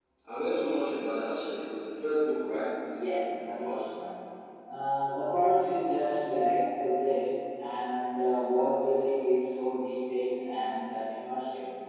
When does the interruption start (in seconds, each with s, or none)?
none